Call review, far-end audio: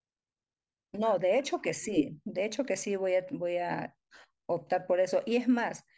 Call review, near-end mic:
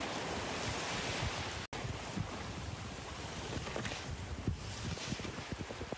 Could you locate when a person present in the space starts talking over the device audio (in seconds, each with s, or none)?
none